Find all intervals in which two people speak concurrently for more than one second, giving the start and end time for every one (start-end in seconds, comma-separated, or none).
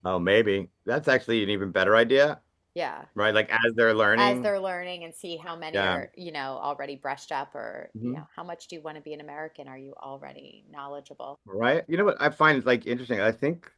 none